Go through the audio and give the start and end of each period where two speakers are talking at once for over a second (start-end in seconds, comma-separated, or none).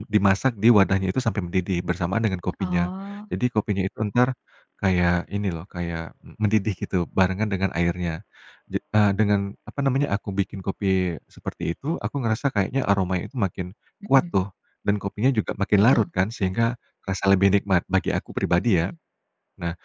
none